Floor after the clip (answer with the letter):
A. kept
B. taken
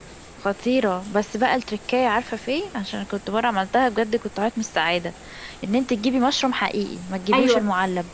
B